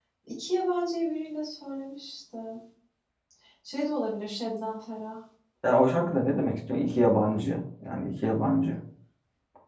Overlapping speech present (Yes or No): No